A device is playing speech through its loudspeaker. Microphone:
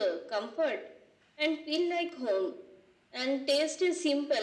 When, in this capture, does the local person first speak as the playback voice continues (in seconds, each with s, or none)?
none